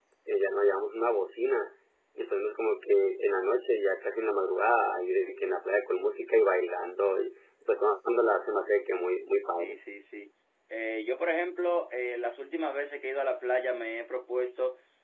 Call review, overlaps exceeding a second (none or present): none